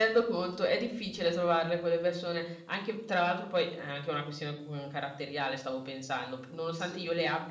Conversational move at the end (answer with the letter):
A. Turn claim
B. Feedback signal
B